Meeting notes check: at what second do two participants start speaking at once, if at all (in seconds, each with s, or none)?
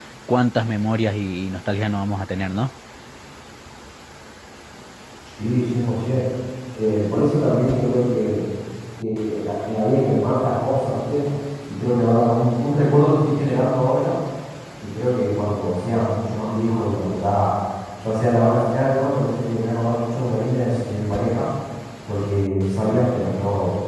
none